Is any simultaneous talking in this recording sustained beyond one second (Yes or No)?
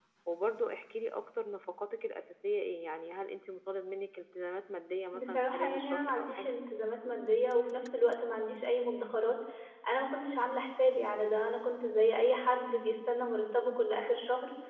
Yes